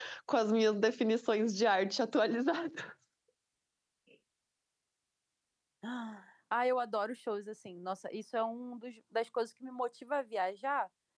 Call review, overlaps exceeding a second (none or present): none